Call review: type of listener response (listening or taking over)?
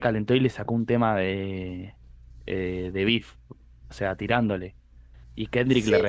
listening